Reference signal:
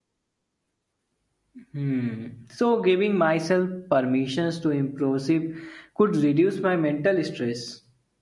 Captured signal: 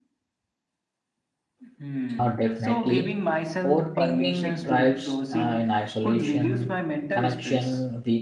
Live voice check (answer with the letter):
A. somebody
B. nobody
A